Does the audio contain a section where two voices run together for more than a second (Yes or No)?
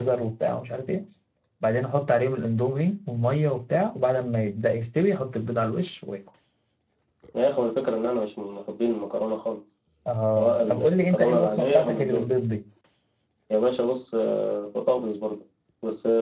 Yes